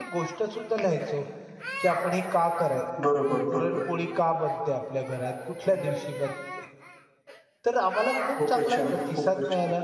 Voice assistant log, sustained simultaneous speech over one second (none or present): present